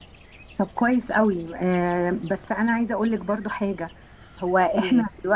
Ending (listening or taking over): listening